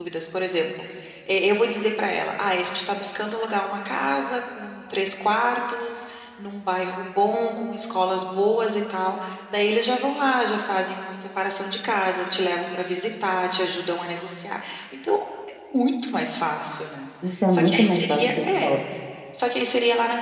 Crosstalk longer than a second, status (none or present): present